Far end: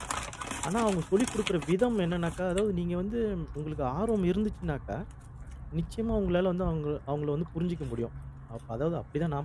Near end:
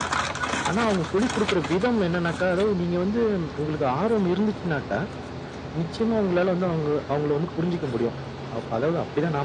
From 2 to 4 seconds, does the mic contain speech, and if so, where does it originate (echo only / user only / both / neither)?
echo only